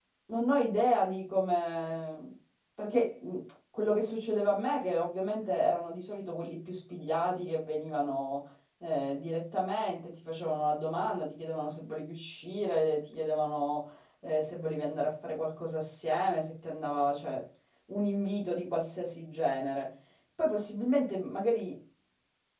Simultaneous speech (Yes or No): No